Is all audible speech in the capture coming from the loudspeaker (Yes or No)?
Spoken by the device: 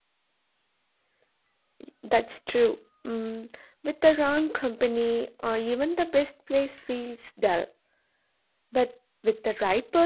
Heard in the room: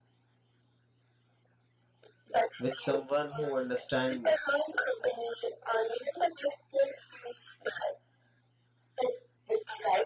No